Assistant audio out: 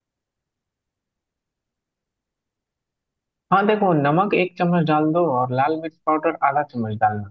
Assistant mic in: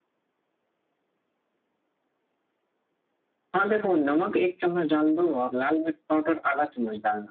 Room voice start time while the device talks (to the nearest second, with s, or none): none